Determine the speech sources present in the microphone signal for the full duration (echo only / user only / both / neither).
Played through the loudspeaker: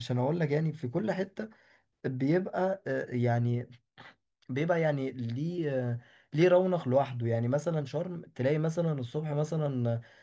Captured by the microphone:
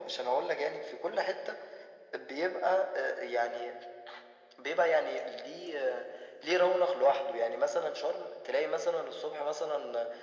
echo only